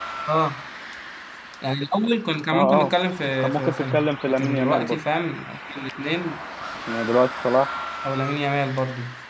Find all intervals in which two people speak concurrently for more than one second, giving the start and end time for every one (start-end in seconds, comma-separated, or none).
3.4-5.0